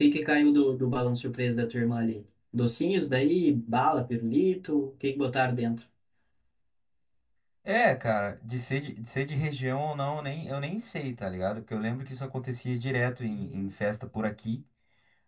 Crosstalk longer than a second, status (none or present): none